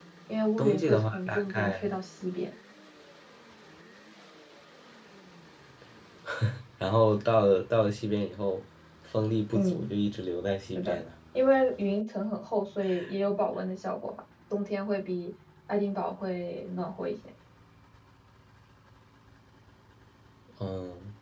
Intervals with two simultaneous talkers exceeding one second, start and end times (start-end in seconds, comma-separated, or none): 0.6-1.9